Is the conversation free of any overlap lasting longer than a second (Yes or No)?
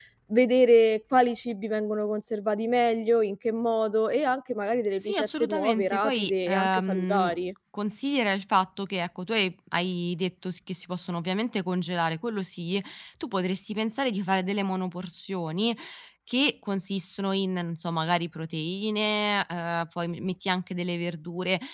No